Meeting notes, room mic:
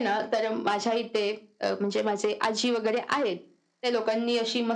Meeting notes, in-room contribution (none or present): none